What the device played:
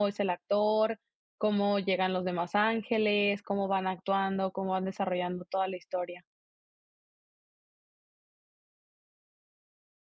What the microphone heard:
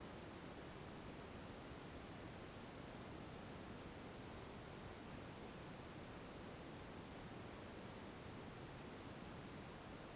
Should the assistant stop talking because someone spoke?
No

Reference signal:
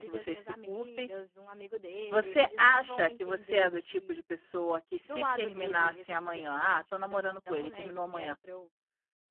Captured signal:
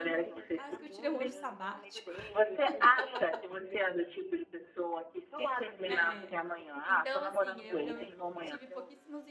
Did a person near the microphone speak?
Yes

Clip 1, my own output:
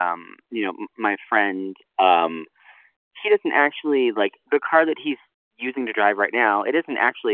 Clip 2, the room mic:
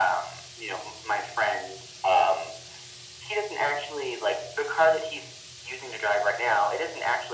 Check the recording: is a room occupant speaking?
No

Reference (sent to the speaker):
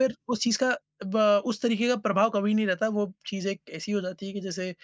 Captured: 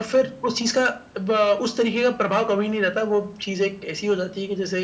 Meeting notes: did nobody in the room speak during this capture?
Yes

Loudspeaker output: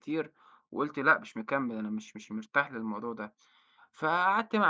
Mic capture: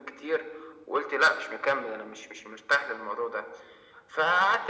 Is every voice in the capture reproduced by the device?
Yes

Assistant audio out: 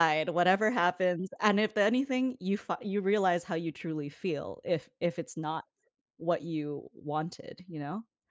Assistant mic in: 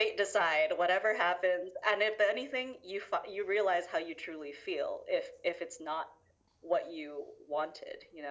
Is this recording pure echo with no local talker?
Yes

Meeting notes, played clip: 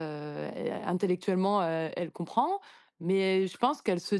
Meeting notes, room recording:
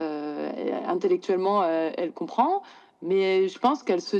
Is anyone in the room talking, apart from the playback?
No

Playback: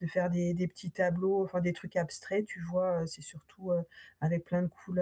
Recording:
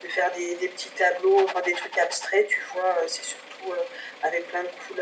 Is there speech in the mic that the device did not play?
No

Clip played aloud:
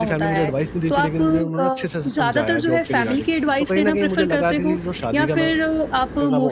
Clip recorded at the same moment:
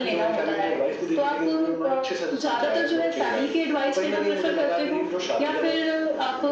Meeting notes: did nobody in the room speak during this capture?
Yes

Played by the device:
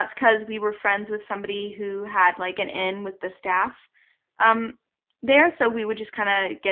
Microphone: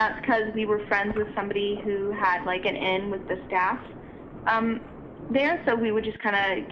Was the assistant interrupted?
No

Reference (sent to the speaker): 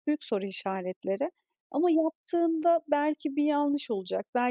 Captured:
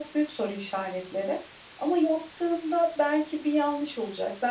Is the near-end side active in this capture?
No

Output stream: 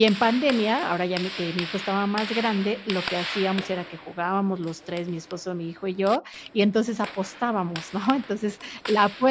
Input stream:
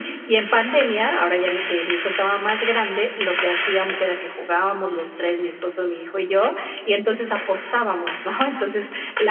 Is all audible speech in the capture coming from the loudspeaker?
Yes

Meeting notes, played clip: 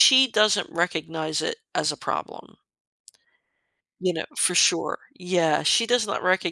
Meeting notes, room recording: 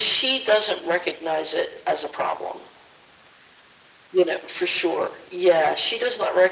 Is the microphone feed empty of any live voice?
Yes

